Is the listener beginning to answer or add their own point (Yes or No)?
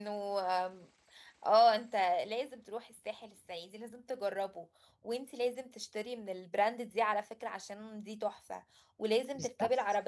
No